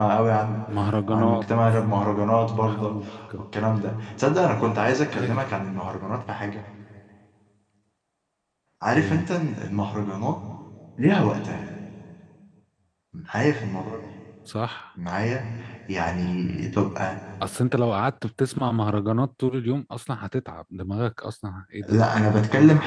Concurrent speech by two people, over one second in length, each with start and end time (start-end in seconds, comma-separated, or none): none